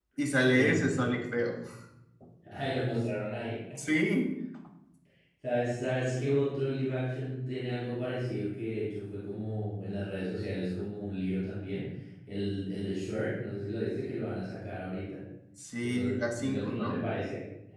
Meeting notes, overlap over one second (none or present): present